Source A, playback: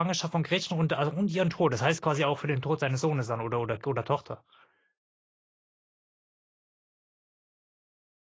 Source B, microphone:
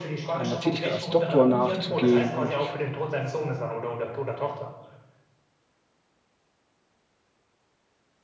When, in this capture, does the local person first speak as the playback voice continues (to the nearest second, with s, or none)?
0 s